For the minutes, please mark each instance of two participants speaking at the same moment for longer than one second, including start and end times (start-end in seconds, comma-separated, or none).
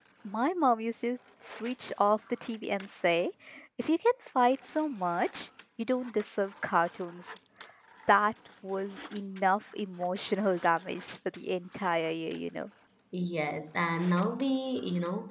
none